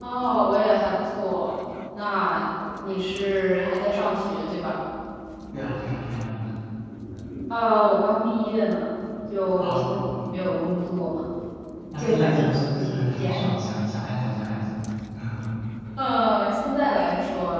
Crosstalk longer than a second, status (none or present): present